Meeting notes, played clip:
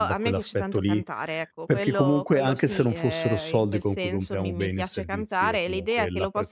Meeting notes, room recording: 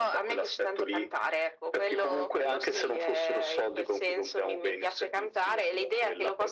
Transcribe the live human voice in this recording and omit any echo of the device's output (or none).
none